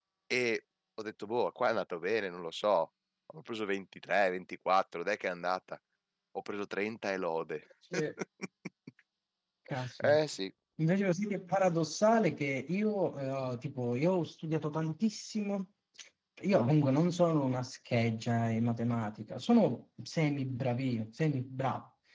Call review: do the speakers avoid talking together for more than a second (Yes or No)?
Yes